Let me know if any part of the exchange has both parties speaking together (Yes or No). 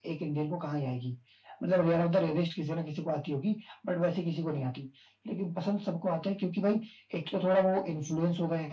No